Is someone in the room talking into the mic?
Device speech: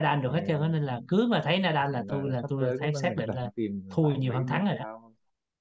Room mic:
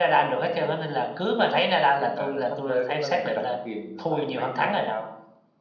No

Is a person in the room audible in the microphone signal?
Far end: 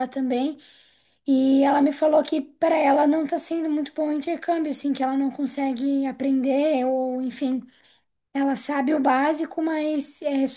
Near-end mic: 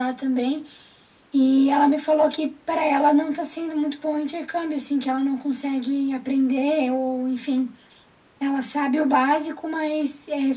No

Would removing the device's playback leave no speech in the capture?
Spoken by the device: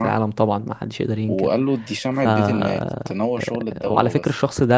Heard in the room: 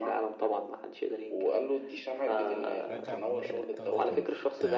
No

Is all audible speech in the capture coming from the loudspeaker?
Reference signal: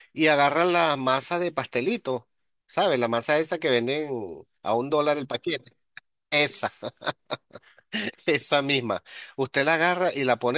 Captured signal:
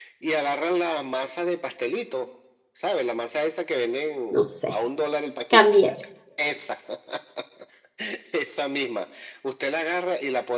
No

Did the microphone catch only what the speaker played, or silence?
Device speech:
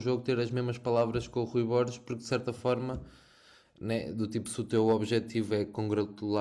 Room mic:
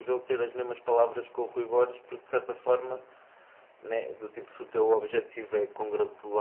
Yes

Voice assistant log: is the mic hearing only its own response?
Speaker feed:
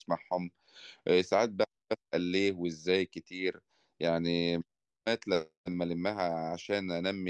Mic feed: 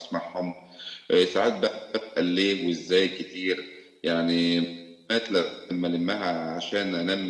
Yes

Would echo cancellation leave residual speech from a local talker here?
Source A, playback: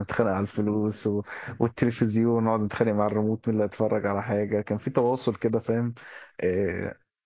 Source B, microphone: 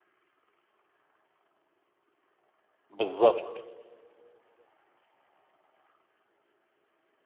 Yes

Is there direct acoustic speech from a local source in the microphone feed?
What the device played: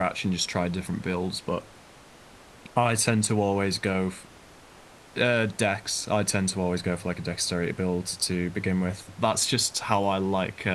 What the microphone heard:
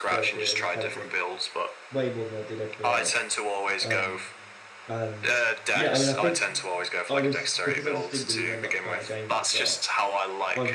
Yes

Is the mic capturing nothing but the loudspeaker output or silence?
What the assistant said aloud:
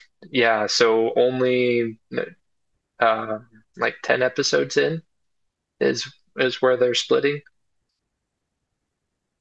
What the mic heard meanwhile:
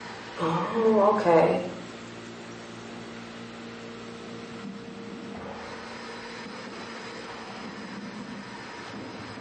No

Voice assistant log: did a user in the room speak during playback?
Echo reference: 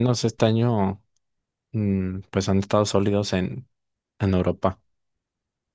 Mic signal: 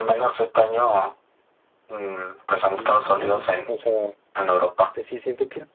Yes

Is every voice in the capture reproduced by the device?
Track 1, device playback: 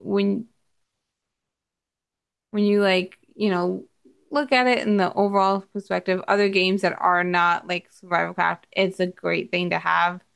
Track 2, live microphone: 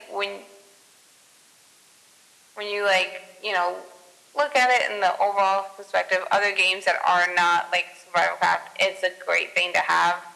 Yes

